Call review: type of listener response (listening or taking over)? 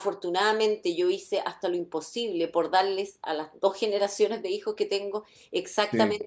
listening